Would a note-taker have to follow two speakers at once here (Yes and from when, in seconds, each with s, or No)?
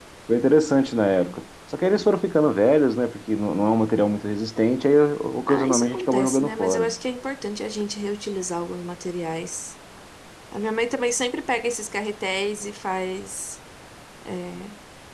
Yes, from 5.5 s